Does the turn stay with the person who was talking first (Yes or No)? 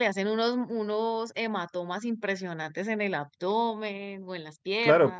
No